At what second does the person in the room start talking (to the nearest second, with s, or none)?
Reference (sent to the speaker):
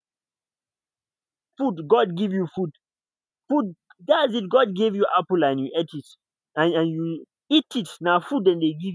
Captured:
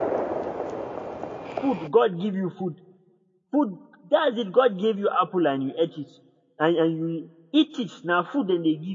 none